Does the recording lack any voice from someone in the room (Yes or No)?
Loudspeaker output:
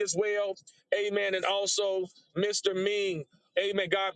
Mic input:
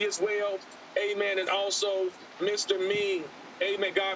Yes